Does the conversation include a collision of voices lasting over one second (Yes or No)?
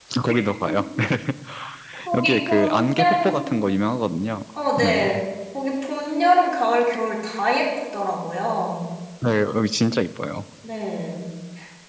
Yes